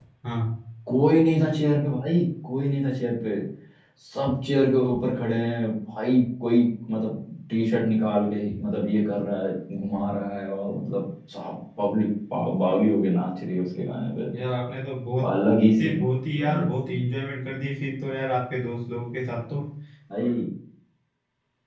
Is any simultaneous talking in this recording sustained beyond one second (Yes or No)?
No